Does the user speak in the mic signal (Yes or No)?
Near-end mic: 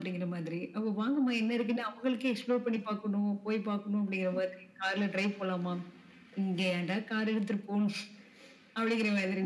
No